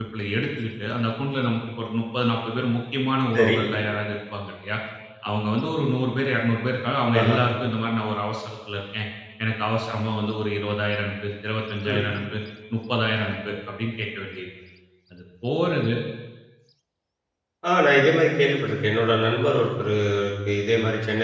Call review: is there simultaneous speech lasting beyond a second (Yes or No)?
No